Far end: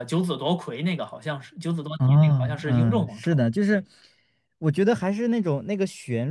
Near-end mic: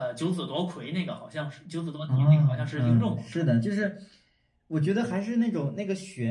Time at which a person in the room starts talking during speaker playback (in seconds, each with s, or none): none